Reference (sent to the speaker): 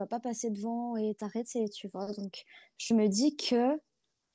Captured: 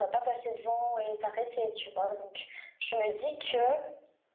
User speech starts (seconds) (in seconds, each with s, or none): none